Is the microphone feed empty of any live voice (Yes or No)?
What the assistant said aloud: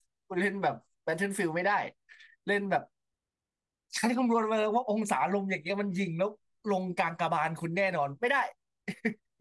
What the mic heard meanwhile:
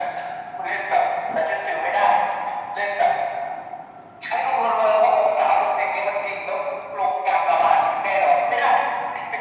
Yes